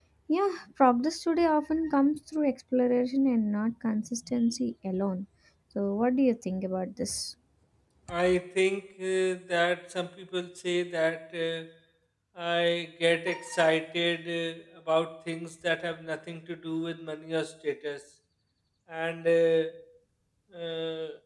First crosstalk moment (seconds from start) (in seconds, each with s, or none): none